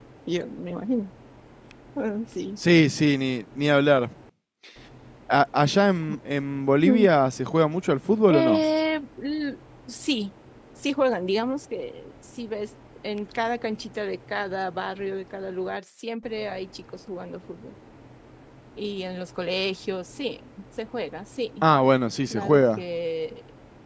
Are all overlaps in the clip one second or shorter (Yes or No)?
Yes